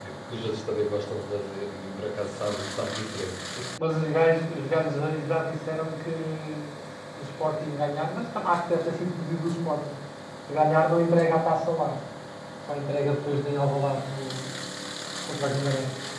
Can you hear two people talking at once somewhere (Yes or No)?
No